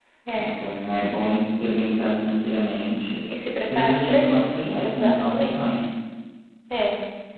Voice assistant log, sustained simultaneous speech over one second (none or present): present